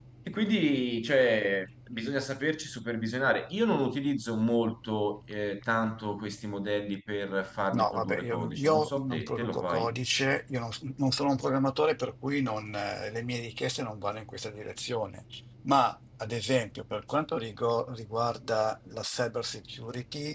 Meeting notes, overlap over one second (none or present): present